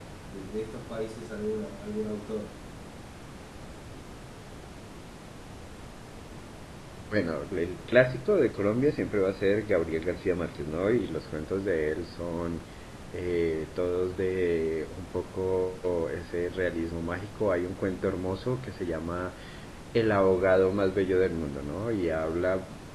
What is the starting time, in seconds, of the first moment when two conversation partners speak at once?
none

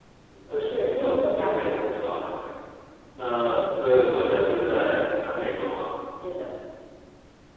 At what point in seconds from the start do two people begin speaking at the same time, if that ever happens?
1 s

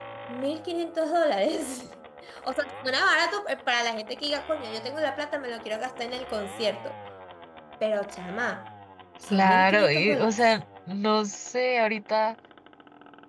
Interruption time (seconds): 9 s

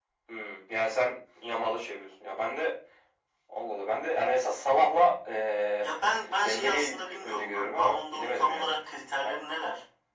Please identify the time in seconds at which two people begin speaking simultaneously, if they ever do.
6 s

